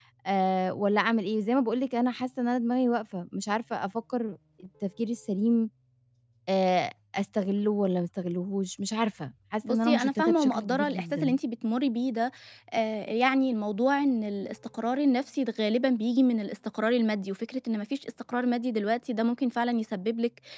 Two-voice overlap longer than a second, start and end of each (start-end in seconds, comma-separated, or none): 9.7-11.4